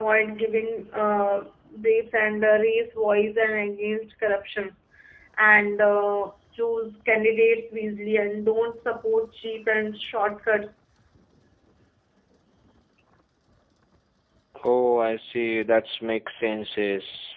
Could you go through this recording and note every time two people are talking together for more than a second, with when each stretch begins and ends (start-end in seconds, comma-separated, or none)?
none